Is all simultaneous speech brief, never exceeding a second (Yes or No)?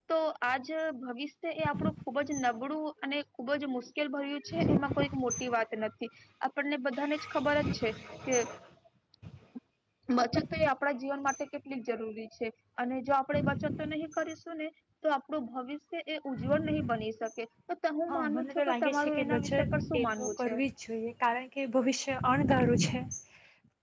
No